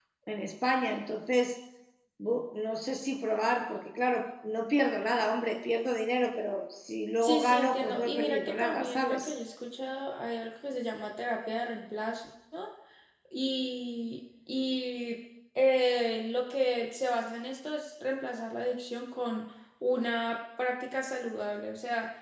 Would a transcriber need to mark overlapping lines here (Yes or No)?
Yes